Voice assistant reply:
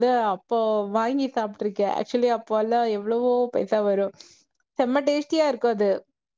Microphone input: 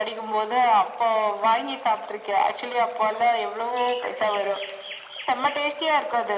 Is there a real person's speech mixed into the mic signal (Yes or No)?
No